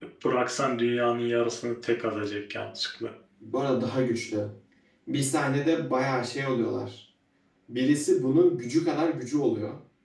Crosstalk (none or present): none